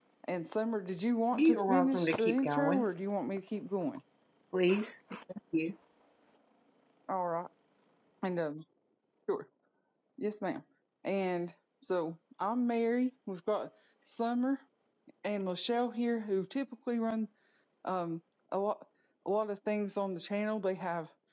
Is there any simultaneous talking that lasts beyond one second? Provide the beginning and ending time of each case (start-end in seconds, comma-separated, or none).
1.3-2.9